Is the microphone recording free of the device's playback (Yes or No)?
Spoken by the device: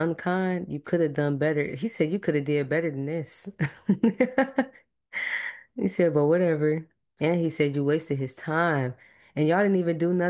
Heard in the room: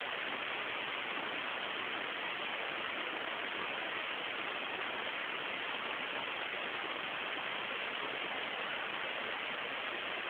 Yes